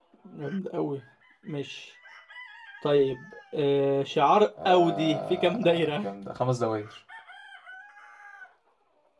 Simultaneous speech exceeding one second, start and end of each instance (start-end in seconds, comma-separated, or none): 4.7-6.1